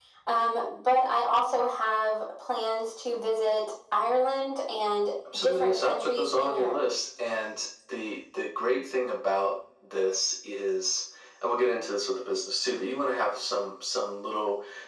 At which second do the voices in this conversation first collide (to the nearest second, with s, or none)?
5 s